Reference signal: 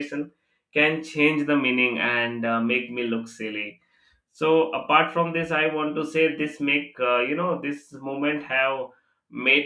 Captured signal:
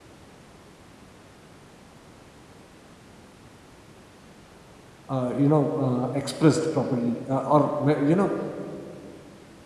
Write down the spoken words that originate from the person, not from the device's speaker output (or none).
uh, you know uh, expressed properly uh, or ma- you know